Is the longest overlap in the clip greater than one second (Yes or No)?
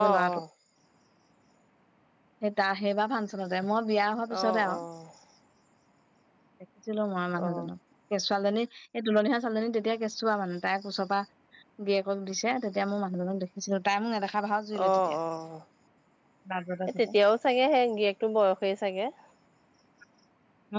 No